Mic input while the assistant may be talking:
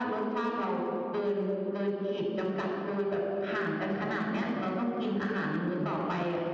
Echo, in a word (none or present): present